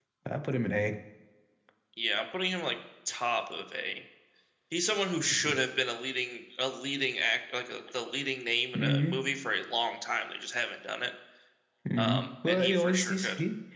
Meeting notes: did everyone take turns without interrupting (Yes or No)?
No